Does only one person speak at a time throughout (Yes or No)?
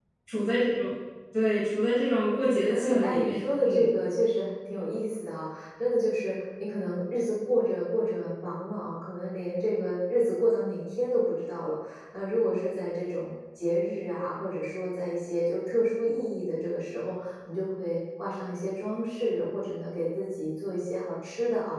No